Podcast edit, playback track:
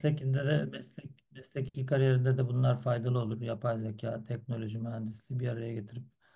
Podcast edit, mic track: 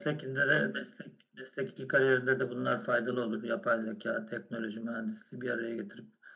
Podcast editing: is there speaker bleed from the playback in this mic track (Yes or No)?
Yes